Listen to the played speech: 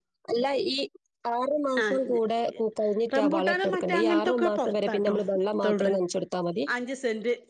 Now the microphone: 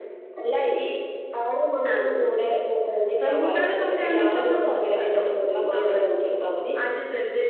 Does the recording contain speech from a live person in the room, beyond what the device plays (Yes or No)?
No